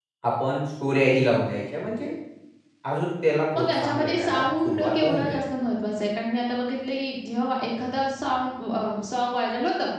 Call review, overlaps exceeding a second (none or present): present